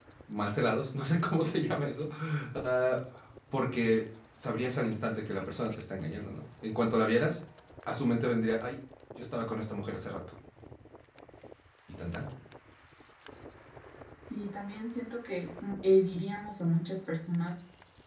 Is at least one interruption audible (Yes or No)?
No